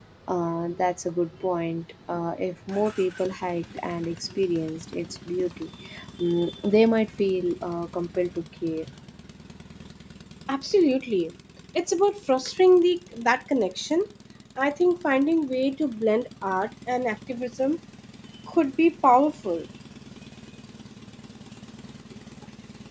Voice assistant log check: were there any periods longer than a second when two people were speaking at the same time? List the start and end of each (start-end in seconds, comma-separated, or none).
none